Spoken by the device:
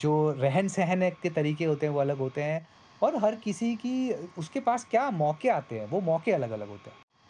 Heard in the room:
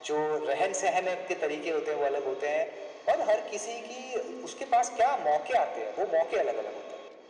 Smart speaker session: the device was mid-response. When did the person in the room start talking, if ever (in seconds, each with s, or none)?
none